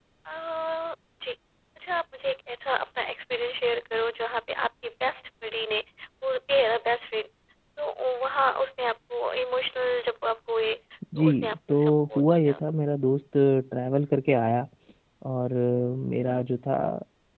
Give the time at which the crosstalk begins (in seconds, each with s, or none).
11.1 s